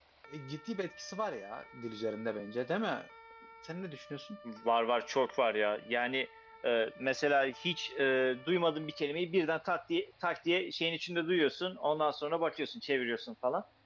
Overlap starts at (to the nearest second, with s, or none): none